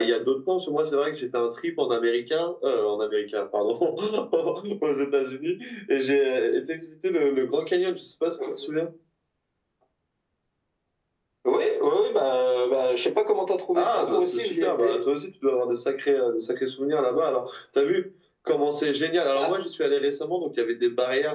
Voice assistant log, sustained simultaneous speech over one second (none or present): present